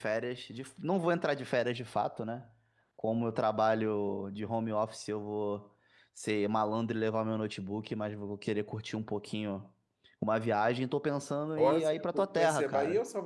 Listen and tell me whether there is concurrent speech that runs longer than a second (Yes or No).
Yes